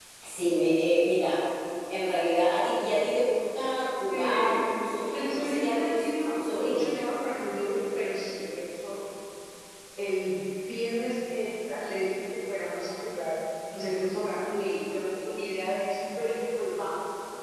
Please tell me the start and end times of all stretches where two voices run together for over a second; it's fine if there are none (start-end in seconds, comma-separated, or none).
5.1-6.9